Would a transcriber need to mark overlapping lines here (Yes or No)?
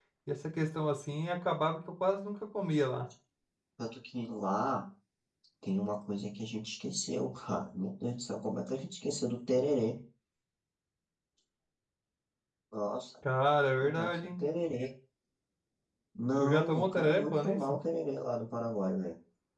Yes